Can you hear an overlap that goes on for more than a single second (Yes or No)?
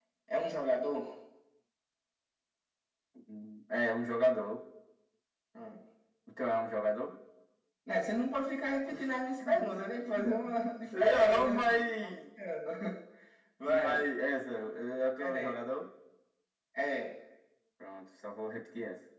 Yes